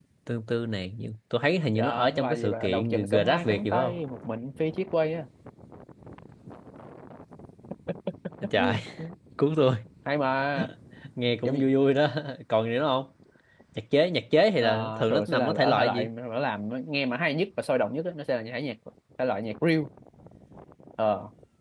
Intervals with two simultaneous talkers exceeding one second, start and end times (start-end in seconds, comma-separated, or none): 1.7-4.0, 14.6-16.1